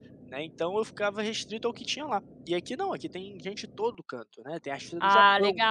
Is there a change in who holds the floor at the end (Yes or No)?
No